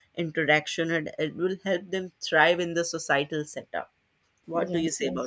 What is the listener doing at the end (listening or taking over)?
taking over